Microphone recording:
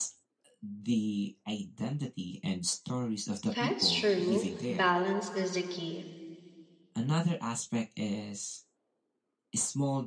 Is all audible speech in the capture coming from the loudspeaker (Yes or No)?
No